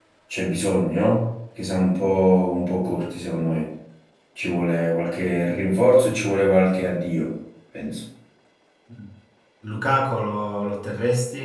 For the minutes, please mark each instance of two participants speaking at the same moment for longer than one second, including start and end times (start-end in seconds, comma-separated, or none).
none